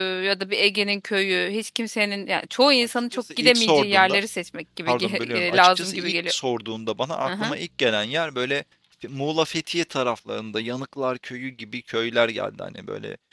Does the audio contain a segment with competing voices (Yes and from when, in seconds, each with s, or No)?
Yes, from 2.8 s